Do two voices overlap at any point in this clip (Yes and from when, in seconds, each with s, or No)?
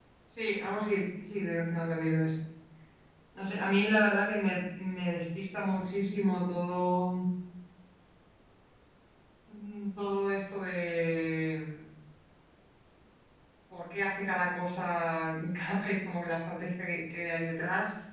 No